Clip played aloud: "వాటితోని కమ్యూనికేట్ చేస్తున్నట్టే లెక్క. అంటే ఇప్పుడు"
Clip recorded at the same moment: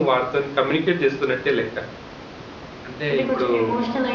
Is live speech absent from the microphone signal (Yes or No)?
No